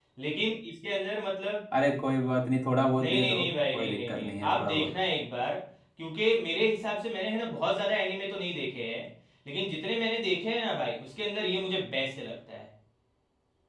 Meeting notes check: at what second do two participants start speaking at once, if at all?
3 s

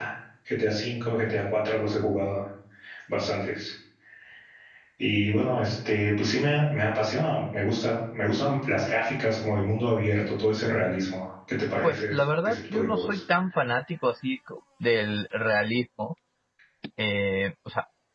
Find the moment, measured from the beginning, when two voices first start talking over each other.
12 s

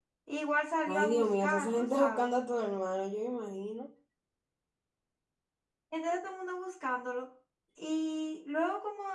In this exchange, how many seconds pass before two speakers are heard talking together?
1 s

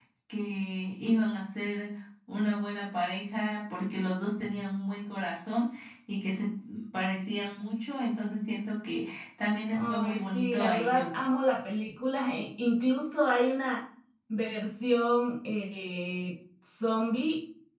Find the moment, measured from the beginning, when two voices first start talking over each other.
10 s

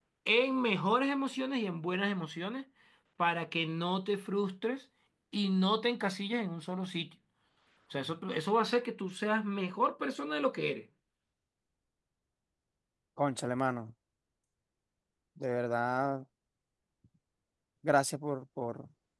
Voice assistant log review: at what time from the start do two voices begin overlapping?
none

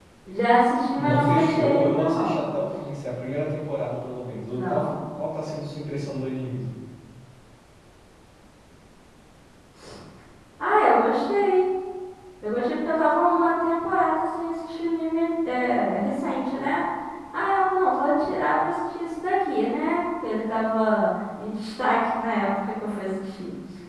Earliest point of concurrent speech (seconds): 1 s

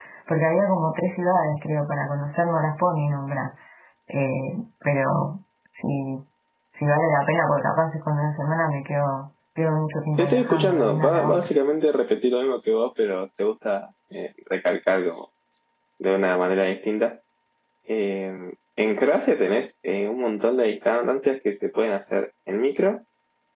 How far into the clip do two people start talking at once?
10 s

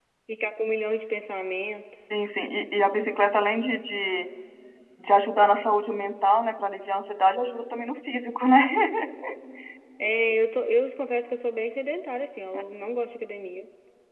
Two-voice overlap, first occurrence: none

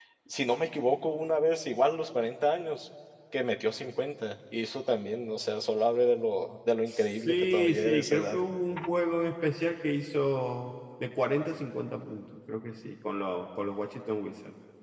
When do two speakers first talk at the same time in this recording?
7 s

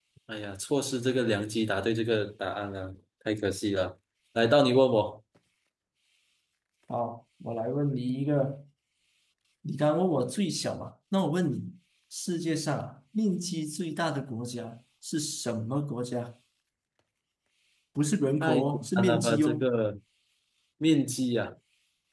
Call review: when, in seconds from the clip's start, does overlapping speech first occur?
18 s

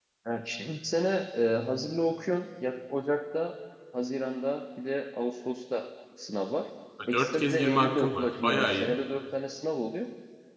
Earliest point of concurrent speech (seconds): 7 s

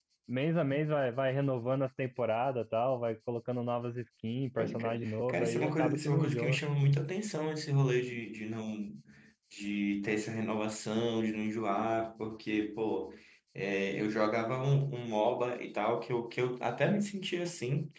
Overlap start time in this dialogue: 5 s

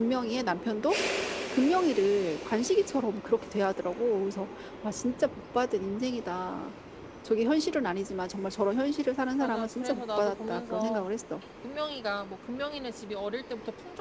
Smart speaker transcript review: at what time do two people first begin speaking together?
9 s

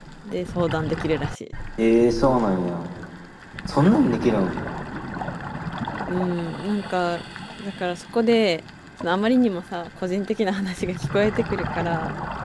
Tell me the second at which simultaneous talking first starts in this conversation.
none

